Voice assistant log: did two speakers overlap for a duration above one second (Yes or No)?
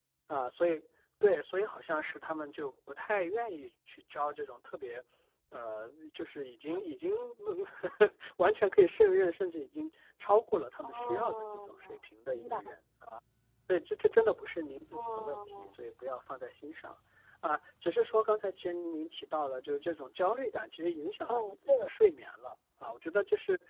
Yes